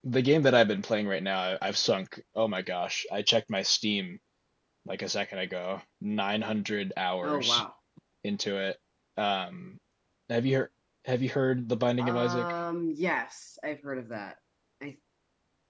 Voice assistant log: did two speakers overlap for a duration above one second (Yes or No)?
No